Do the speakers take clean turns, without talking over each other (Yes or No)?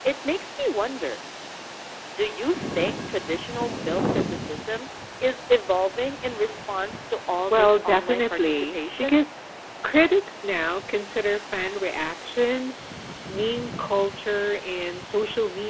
No